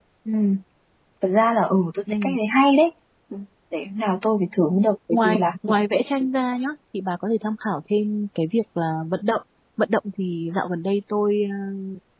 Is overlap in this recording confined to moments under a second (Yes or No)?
Yes